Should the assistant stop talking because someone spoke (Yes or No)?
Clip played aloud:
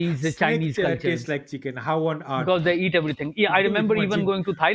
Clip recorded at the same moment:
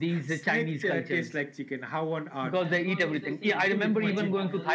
Yes